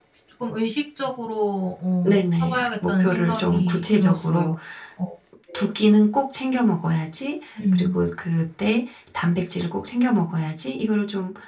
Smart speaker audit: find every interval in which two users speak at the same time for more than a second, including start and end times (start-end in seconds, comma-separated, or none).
2.0-4.5